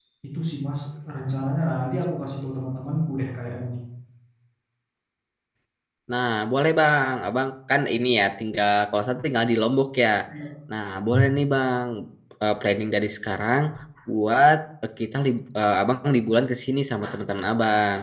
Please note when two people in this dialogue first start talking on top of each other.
none

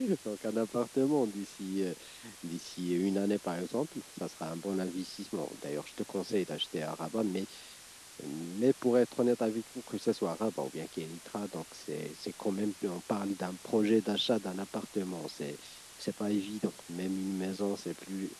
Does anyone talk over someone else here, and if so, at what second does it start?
none

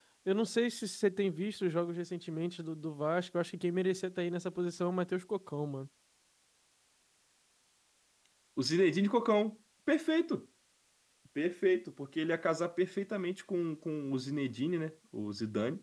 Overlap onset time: none

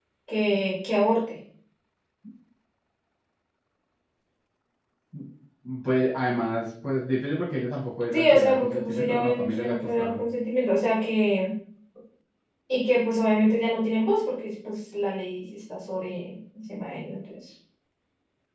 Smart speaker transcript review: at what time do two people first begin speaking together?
8.1 s

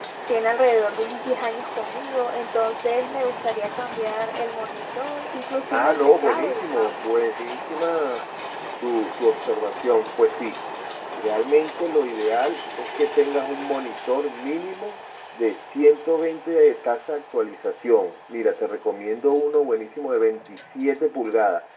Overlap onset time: 5.7 s

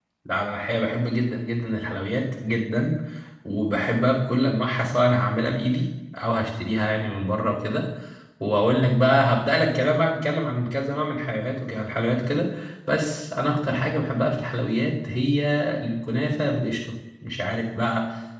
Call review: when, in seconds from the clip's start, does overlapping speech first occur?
none

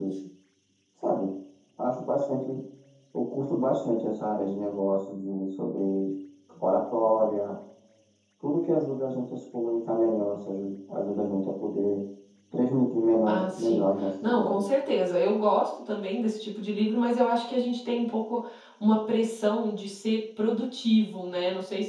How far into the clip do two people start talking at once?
13.3 s

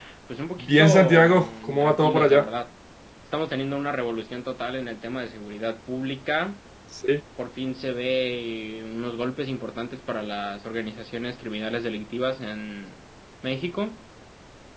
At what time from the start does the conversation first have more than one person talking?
0.6 s

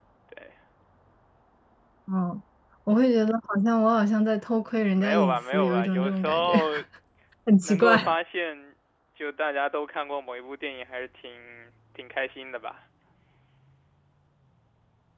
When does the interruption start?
4.9 s

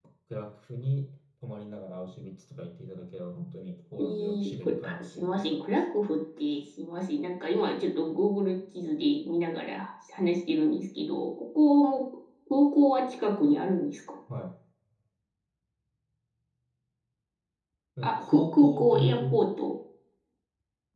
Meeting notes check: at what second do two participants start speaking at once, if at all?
4.0 s

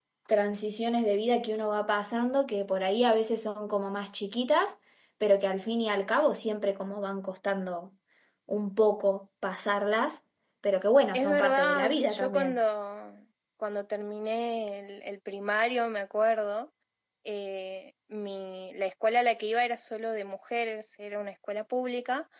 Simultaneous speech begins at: 11.1 s

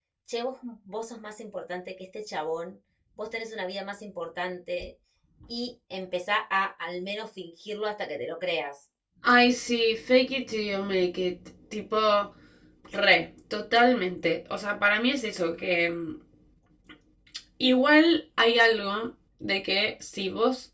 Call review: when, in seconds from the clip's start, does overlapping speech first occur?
none

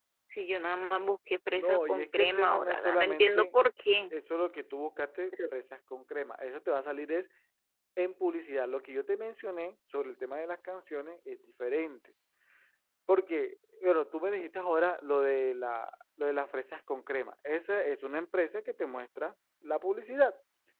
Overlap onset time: 1.6 s

